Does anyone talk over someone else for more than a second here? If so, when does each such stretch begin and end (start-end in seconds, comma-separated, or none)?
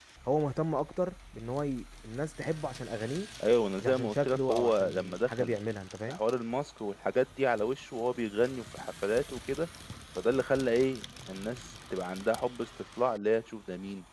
3.8-5.5